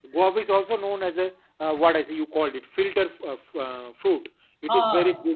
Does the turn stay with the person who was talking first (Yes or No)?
Yes